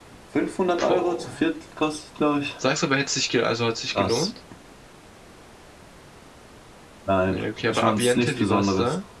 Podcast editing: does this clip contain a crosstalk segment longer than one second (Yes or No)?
Yes